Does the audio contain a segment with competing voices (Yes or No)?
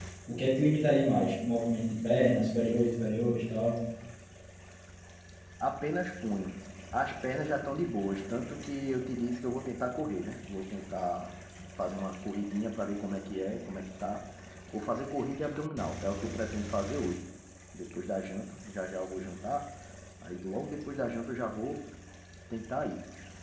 No